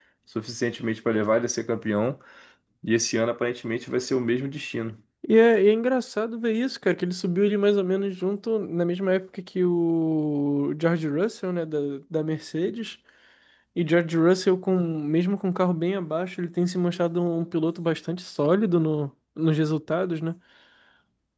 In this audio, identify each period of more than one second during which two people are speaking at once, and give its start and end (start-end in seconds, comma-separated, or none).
none